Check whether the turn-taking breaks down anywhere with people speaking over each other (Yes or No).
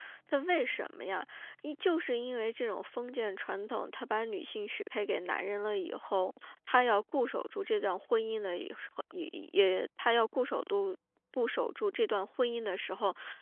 No